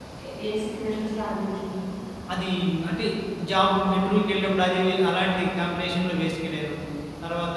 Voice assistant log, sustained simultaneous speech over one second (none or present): none